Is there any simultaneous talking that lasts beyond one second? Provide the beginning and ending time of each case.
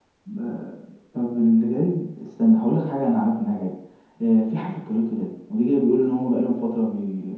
none

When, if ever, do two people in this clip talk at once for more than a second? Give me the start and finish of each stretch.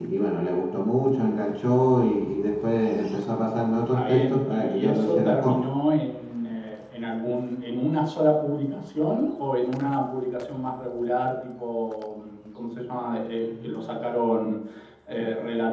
3.9-5.6

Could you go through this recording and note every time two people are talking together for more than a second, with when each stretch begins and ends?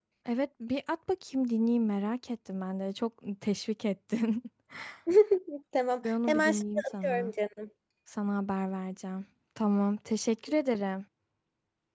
6.0-7.3

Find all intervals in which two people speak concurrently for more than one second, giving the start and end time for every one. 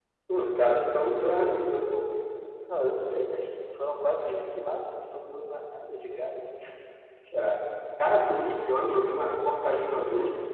none

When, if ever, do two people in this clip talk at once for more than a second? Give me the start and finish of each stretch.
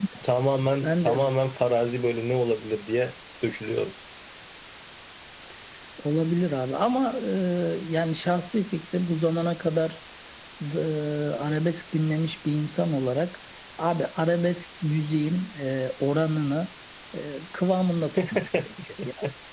none

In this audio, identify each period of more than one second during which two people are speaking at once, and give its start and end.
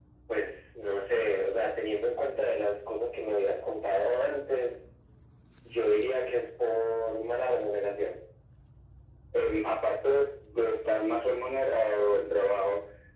none

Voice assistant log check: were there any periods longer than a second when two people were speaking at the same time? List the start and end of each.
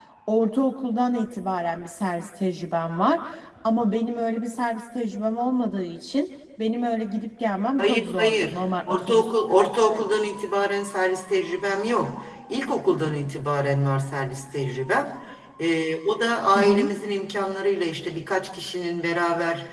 7.8-10.3

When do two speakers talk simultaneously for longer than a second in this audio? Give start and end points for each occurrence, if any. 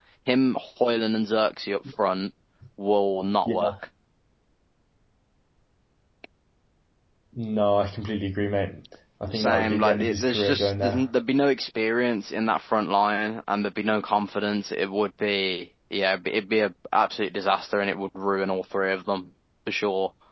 9.3-11.0

